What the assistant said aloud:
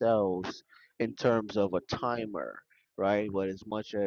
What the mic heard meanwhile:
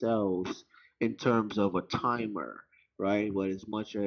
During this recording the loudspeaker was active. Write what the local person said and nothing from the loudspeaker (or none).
none